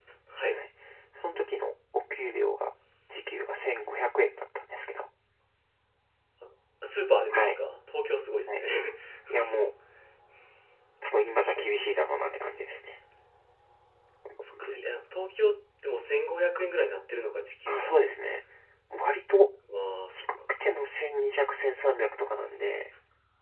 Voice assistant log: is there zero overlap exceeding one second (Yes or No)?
Yes